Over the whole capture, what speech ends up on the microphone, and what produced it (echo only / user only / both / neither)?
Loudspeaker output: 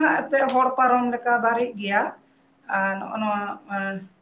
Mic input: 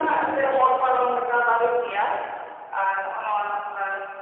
echo only